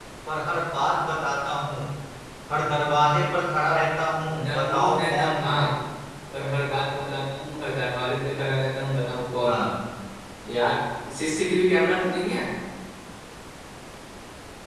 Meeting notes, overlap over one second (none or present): present